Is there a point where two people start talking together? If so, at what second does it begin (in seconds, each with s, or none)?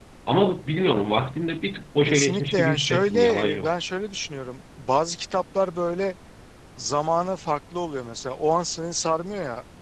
2.0 s